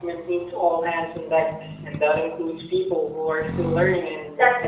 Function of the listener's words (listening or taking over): taking over